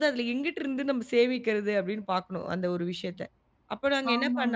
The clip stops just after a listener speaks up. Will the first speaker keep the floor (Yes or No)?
No